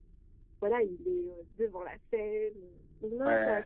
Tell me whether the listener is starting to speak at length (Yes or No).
Yes